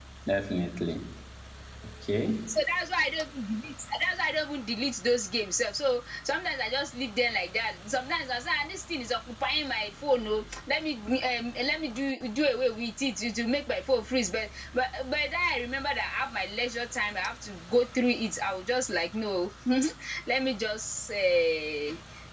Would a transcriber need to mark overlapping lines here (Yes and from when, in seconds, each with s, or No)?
No